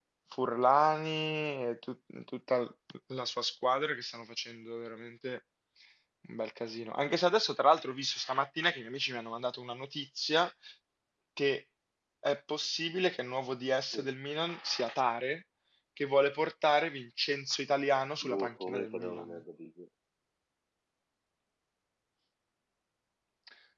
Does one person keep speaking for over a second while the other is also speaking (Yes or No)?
Yes